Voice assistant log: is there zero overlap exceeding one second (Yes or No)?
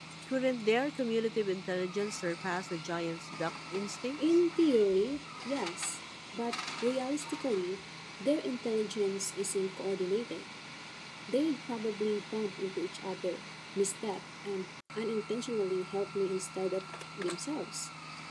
Yes